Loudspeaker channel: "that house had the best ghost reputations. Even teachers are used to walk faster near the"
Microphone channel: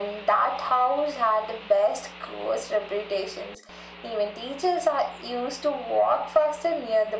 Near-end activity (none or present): none